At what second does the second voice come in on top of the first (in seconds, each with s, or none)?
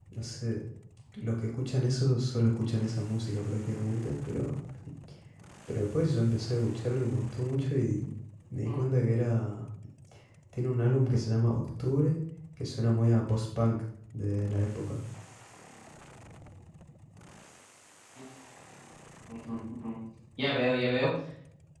none